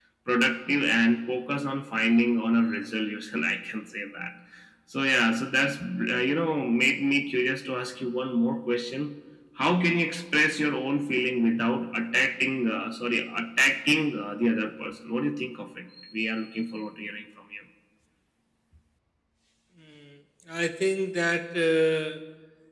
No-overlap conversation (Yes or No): Yes